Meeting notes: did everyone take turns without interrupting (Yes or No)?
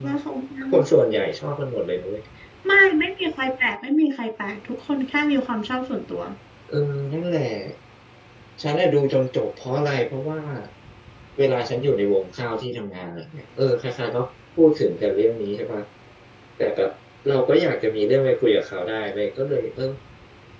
Yes